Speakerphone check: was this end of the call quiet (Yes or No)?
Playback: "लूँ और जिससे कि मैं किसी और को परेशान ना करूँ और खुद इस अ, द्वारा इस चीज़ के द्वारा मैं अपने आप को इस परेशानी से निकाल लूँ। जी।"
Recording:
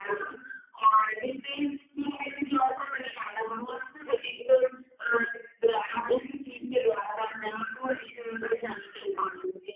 Yes